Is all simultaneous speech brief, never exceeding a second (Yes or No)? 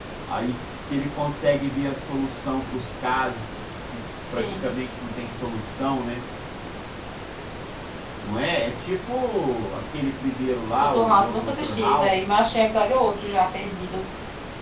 No